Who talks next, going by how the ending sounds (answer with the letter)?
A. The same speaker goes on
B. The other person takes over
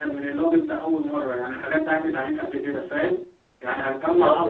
A